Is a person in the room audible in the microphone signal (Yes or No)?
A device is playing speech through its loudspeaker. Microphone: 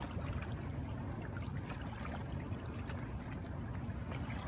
No